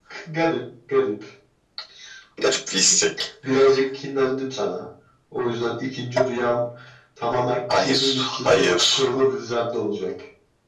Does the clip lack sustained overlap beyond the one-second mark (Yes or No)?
No